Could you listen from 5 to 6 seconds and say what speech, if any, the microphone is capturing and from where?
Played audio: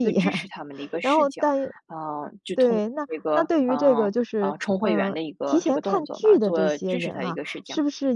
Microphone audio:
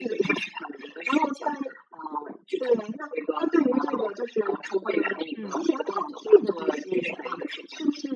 both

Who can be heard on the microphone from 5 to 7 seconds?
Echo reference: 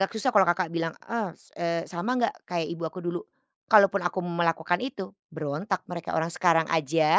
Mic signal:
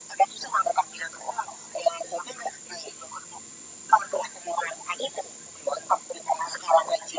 echo only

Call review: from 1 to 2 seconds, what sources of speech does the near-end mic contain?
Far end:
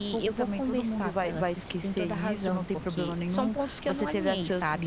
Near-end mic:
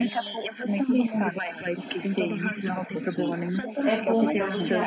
echo only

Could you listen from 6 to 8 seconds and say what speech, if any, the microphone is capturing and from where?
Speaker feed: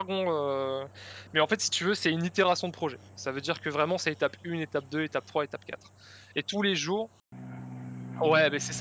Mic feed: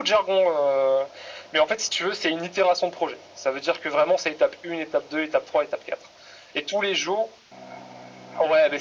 echo only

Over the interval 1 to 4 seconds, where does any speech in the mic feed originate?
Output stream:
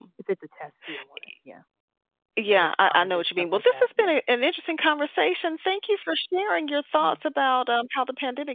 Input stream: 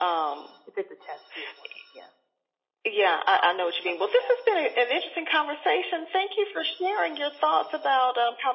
echo only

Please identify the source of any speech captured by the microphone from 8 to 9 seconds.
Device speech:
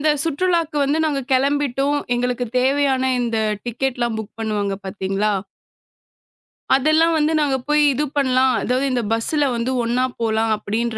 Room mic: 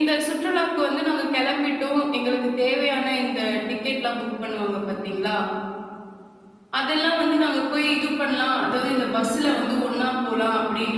echo only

